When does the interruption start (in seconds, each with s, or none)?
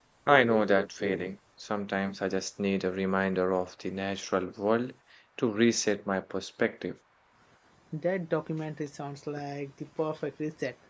none